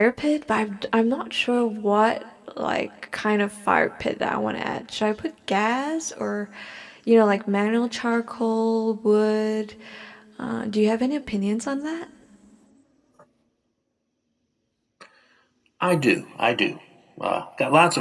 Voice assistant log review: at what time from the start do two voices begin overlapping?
none

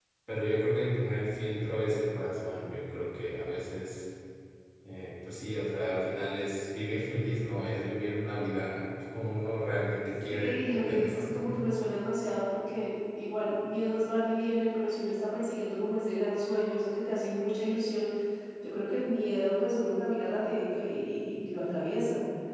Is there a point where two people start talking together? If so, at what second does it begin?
10.3 s

